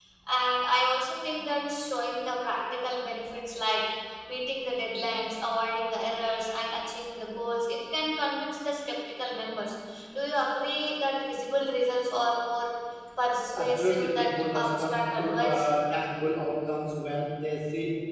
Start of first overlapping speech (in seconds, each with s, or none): 13.6 s